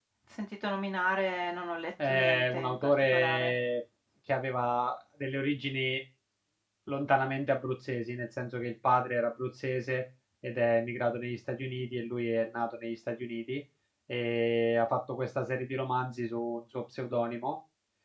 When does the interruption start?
2 s

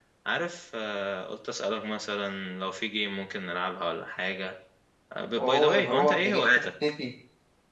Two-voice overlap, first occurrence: 5 s

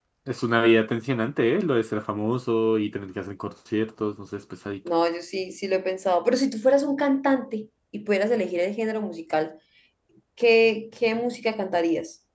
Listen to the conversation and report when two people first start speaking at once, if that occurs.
none

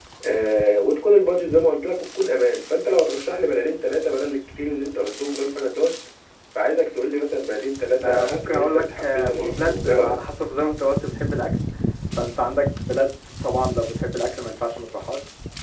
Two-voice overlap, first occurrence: 8 s

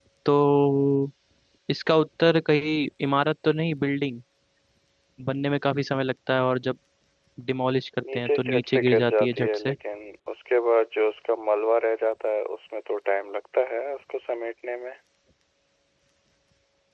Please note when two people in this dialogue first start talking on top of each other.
8 s

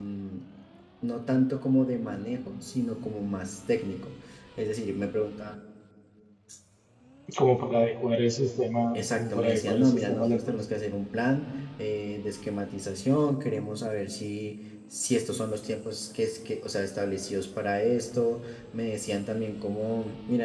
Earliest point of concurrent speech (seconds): 9 s

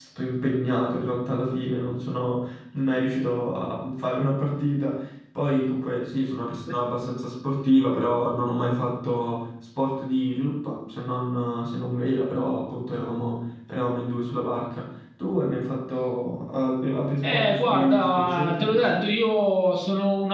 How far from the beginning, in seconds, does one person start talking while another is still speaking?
17 s

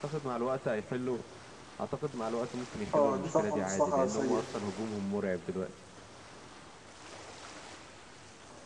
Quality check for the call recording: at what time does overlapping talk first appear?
3 s

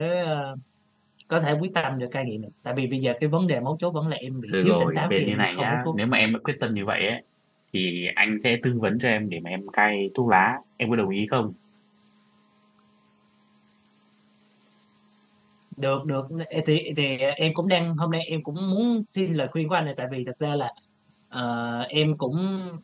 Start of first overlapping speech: 4 s

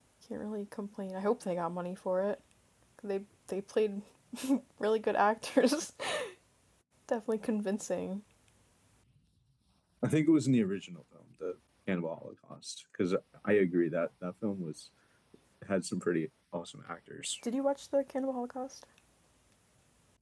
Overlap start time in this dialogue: none

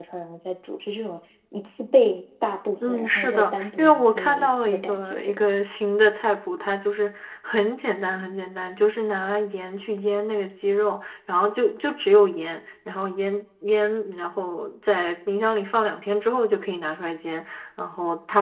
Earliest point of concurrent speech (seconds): 3 s

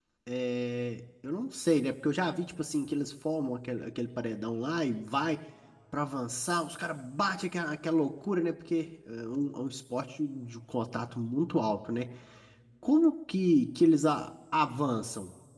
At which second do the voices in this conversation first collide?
none

